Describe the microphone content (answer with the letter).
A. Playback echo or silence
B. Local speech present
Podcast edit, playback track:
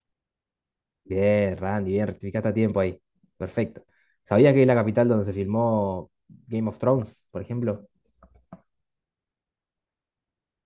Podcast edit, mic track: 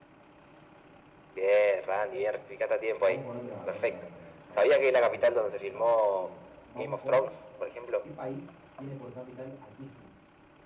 B